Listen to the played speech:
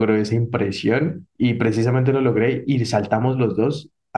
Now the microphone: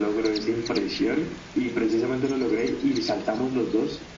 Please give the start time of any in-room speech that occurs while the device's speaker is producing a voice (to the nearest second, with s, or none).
none